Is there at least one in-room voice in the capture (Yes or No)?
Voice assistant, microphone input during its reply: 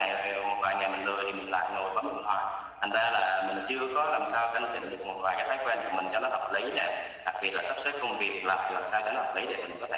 No